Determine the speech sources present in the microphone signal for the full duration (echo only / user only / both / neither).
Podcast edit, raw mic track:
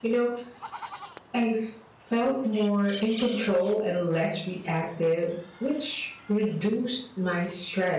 user only